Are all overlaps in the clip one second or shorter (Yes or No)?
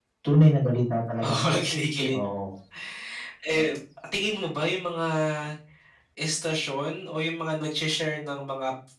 Yes